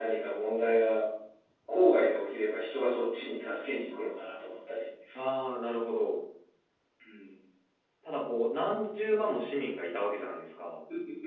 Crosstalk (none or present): none